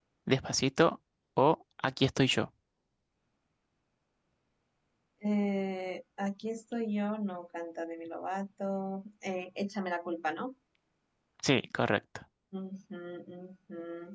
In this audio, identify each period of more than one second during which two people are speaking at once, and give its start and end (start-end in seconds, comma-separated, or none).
none